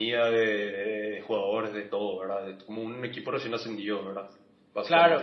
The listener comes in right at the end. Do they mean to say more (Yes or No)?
Yes